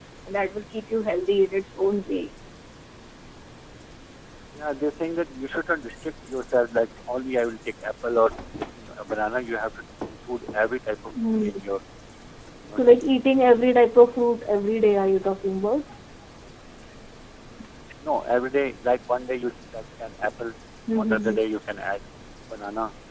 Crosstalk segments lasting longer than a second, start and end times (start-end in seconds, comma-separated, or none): none